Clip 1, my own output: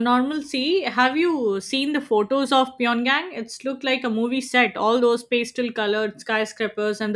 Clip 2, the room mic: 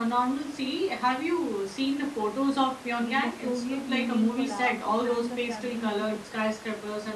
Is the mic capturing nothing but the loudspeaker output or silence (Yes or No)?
No